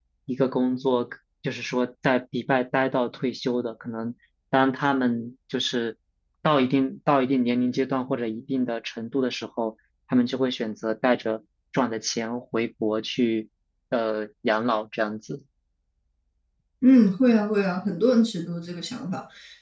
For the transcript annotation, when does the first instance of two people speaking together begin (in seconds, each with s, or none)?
none